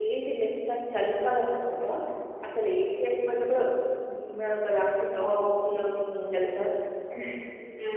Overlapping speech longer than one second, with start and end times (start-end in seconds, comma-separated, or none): none